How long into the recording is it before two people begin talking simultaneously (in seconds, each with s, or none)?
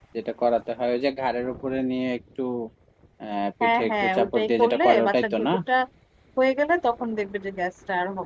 3.6 s